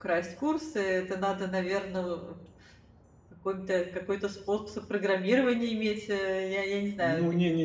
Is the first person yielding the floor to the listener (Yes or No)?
Yes